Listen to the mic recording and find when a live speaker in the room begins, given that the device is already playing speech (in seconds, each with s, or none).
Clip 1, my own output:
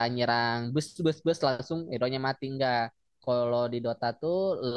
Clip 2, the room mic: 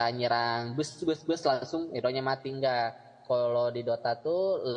none